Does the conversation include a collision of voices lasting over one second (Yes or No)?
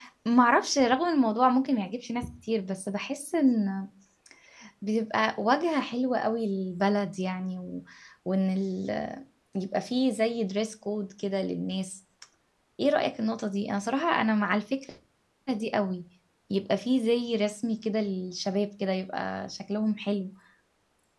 No